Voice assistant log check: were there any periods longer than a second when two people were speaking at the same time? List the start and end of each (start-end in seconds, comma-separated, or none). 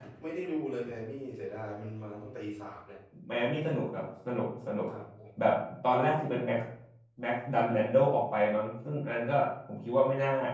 none